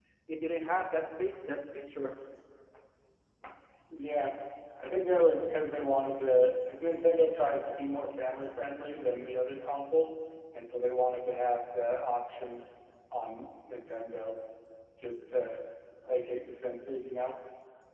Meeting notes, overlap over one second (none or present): none